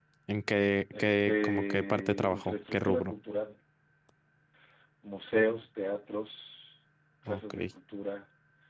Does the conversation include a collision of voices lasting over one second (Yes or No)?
Yes